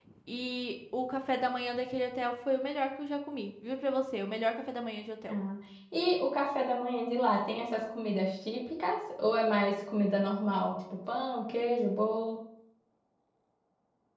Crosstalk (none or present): none